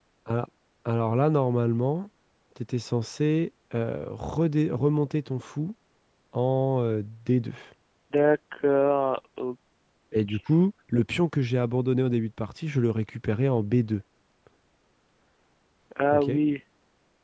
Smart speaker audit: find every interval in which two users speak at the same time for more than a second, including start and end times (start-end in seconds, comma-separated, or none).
none